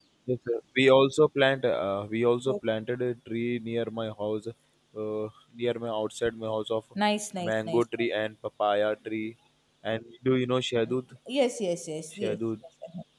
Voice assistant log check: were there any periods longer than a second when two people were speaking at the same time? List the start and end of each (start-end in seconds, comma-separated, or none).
none